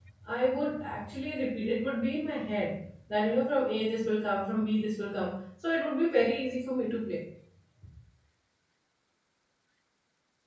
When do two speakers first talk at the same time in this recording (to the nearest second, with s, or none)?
none